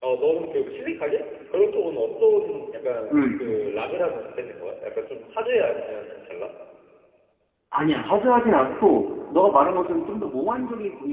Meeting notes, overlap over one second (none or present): none